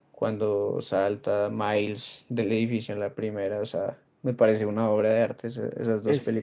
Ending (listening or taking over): taking over